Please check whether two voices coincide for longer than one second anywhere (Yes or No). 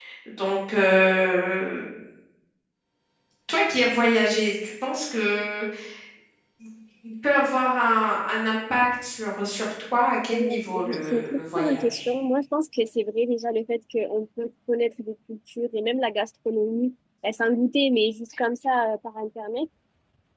Yes